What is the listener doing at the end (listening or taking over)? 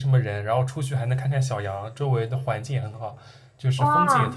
listening